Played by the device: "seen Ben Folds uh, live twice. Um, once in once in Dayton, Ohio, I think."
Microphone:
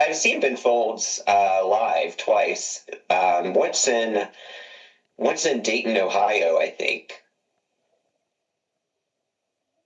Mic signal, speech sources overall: echo only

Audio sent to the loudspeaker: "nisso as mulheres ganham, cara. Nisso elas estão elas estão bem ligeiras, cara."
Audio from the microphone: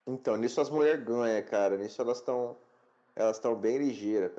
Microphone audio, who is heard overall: echo only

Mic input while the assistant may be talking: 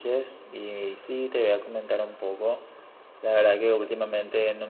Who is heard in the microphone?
echo only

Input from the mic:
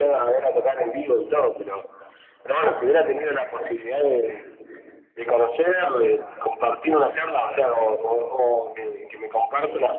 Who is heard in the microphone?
echo only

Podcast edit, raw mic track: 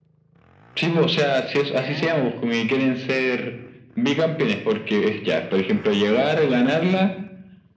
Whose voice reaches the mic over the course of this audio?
both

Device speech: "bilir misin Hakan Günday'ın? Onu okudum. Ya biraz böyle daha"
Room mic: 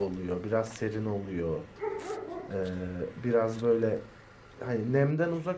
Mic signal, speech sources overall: user only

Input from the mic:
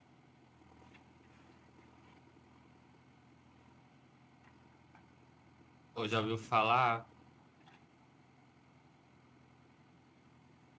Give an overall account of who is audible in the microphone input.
user only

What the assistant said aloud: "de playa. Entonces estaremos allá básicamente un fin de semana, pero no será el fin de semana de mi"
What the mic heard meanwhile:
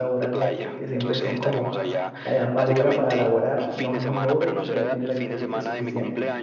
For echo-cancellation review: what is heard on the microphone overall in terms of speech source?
both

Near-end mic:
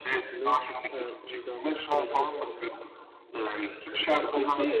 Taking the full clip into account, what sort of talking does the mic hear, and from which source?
both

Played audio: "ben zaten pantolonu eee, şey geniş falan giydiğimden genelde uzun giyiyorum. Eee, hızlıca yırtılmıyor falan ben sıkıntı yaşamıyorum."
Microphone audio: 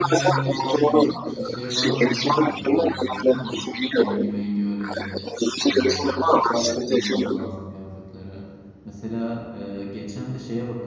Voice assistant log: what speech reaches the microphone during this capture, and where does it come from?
both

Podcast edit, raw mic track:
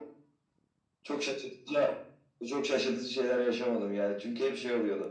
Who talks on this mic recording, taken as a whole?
echo only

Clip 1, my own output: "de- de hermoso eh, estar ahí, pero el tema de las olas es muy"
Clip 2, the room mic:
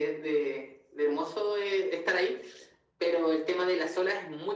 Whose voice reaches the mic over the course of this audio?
echo only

